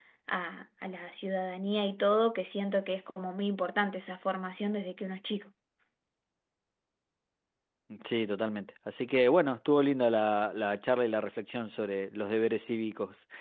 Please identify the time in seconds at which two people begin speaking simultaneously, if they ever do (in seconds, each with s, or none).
none